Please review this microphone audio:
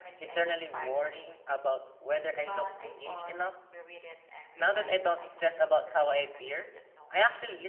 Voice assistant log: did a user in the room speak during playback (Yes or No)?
Yes